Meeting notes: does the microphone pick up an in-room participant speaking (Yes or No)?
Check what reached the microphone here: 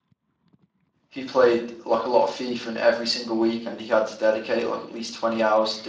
Yes